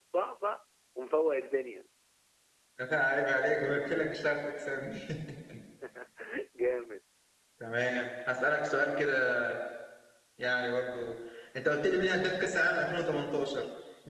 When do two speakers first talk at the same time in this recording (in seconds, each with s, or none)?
none